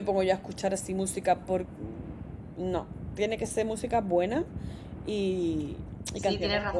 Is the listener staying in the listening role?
No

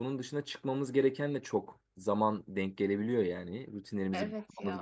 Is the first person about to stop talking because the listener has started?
No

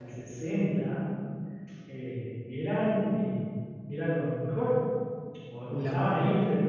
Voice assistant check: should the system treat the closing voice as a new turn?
No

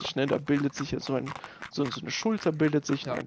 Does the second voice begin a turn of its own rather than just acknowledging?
No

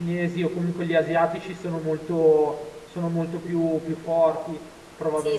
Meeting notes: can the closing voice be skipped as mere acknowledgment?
No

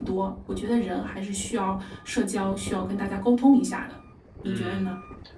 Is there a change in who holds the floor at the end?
Yes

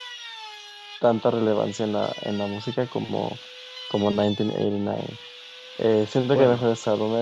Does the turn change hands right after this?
No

